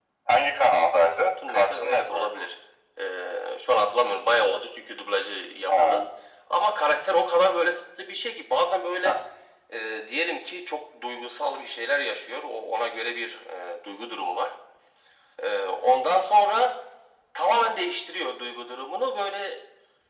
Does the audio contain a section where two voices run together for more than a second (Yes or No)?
Yes